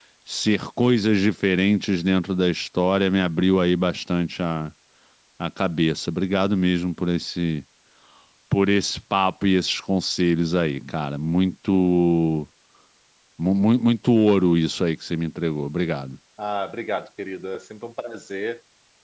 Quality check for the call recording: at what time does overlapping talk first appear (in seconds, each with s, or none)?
none